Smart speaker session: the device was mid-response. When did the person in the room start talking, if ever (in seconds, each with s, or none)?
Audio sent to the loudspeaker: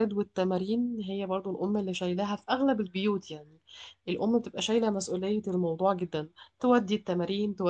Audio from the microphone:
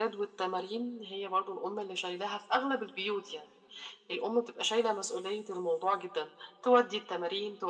none